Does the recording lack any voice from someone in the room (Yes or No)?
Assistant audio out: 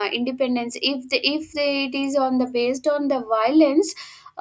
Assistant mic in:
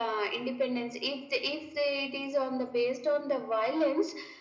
Yes